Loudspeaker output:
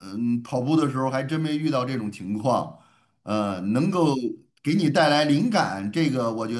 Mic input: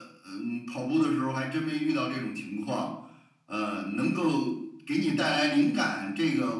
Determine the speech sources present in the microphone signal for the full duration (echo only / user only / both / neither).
echo only